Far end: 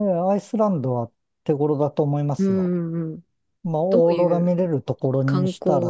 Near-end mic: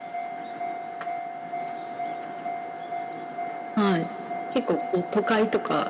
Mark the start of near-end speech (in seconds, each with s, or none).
3.7 s